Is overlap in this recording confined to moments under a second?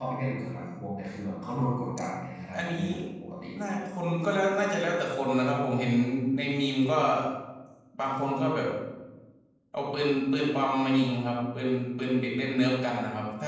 Yes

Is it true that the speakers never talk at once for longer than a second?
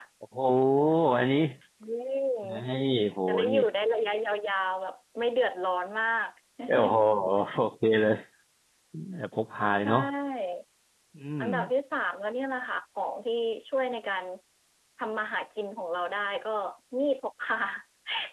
Yes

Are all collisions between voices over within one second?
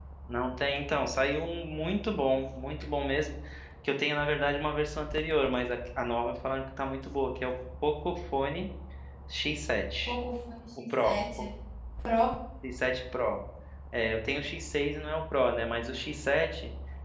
Yes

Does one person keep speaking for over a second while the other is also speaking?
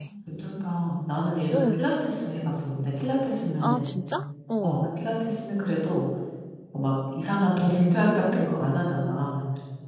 No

